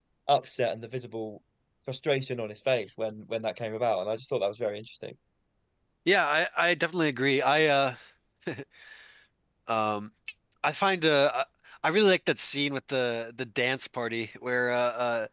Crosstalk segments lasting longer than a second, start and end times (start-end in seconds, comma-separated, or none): none